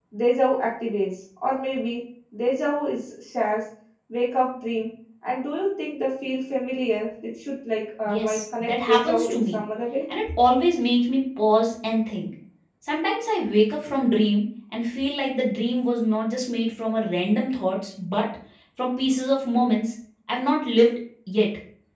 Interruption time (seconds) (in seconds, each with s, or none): 8.1 s